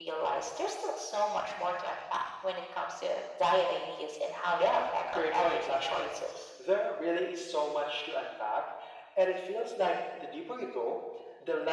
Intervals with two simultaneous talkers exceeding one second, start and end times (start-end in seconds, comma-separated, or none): 4.6-6.1